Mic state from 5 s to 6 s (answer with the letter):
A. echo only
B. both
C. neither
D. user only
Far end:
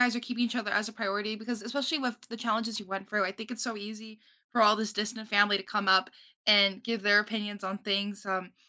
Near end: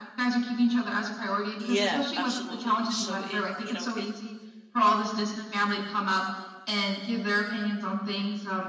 A